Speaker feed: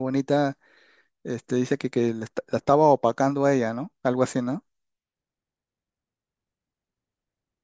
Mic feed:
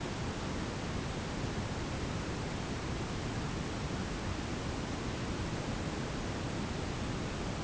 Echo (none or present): none